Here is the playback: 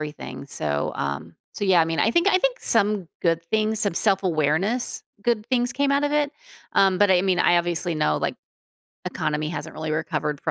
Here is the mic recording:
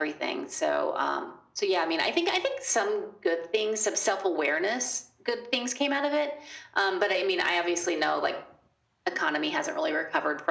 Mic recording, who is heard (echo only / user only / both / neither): echo only